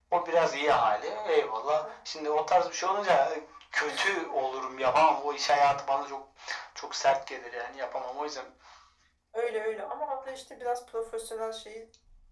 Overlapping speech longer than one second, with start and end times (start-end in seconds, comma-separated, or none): none